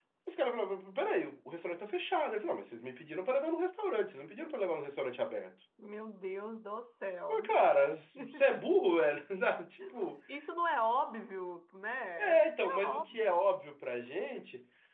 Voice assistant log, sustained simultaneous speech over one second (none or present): present